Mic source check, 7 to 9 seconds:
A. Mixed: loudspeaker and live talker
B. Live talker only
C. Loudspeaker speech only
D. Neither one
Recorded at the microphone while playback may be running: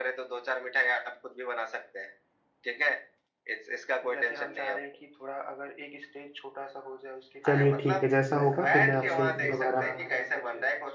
A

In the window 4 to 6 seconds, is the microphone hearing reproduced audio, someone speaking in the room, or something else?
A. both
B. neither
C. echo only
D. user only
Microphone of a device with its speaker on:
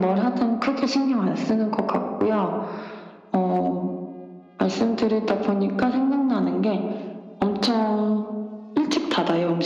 C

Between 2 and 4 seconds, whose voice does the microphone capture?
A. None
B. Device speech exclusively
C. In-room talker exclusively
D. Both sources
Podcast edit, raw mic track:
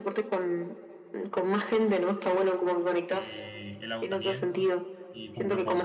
D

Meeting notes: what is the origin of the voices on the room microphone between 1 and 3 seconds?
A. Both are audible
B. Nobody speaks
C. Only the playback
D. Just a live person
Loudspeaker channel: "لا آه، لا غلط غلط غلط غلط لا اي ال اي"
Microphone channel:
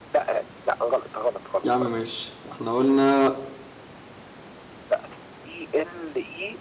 A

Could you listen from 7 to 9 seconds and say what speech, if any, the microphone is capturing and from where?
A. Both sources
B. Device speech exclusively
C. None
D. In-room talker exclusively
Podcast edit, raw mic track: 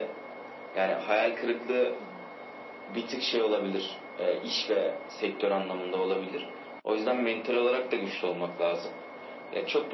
B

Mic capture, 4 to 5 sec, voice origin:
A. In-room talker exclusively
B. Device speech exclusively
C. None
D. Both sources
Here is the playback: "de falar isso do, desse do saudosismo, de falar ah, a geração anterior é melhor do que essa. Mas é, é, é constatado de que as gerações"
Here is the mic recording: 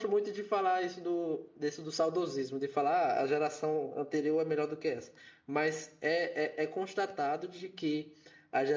B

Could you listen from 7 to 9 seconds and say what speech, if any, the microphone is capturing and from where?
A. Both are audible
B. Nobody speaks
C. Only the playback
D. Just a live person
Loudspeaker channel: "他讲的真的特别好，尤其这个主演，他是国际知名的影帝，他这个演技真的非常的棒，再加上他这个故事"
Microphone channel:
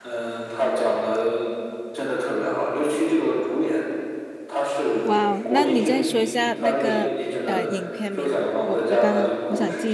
A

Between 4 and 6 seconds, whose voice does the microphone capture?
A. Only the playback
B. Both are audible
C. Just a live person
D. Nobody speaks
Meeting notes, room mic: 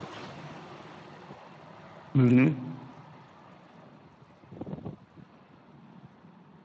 D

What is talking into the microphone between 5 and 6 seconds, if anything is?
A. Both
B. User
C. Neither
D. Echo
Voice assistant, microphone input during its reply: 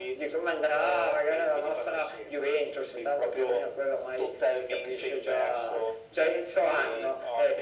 D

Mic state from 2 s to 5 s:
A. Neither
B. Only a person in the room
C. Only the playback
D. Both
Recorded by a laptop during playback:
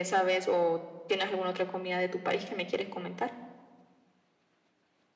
C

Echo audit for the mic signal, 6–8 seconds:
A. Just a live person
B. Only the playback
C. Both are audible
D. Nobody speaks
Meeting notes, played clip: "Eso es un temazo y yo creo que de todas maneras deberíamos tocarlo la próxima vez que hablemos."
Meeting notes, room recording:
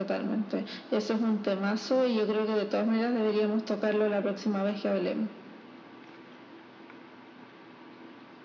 D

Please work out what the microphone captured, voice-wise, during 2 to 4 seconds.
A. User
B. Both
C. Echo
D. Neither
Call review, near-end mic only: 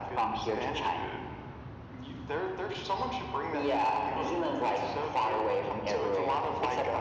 C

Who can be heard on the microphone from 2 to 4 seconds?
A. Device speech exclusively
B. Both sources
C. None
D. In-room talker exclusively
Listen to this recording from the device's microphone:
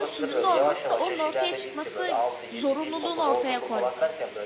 B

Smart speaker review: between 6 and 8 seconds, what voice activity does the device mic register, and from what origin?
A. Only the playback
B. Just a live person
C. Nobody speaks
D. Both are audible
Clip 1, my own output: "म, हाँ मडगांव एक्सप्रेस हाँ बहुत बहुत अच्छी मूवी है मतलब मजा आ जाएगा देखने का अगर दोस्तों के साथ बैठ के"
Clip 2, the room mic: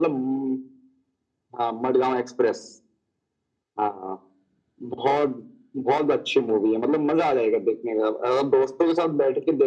A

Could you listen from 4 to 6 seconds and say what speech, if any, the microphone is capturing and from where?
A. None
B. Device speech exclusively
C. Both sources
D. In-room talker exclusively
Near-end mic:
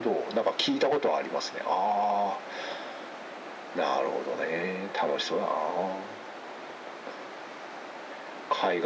B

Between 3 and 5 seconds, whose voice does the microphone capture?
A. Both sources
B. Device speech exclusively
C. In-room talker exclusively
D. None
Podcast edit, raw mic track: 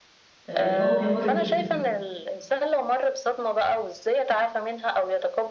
B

